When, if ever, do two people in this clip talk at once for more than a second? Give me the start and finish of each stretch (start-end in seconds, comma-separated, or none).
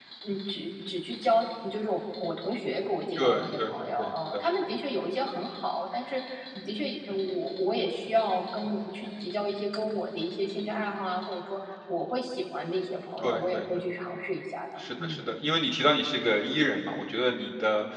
3.2-4.4